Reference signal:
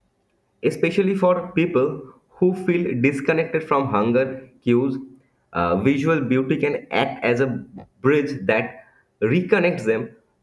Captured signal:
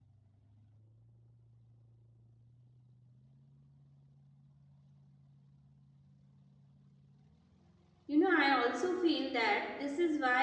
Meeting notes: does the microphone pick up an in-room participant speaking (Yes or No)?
Yes